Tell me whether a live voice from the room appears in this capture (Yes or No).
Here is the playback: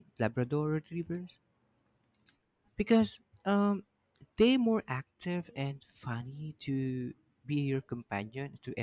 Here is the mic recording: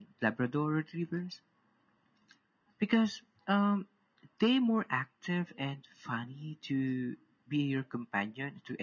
No